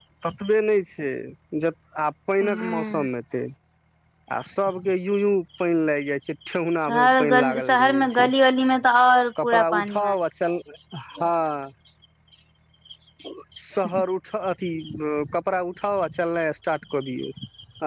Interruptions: present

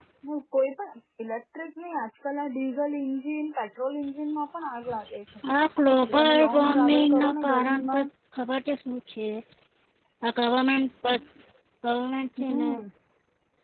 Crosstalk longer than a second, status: present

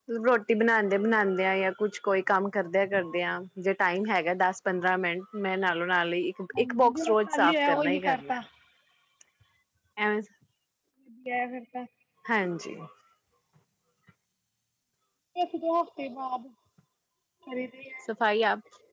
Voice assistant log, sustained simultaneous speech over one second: present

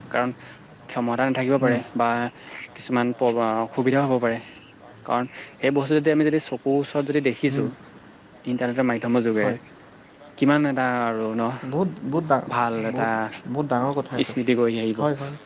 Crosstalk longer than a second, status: none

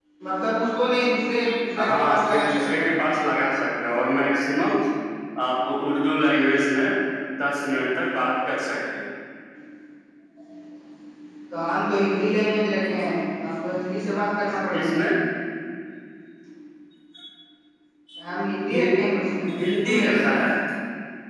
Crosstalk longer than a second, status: present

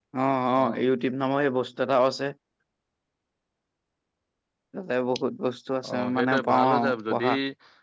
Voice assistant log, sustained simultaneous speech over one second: present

